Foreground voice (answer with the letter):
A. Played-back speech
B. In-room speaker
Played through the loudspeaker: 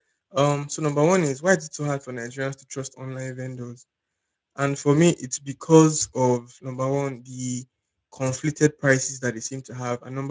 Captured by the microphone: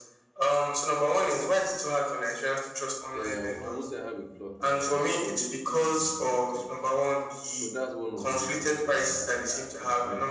A